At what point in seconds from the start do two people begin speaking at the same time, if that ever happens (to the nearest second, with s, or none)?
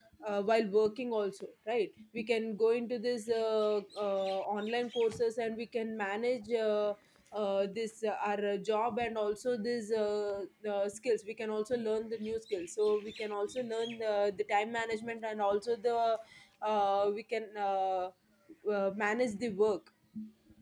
none